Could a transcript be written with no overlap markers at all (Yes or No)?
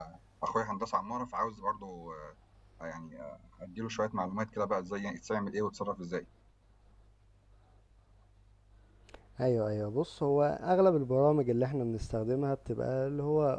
Yes